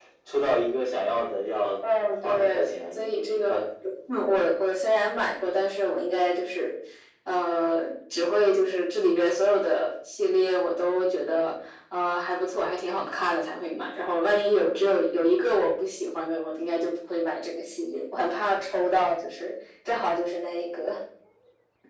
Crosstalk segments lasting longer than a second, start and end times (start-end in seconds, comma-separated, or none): 2.0-3.5